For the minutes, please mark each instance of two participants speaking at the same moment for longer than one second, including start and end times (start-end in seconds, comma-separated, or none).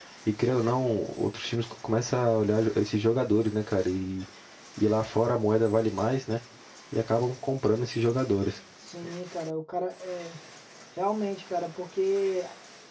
none